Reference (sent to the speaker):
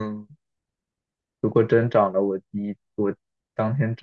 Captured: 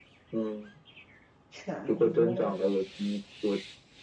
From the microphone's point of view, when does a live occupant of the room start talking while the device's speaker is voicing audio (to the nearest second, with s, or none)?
1 s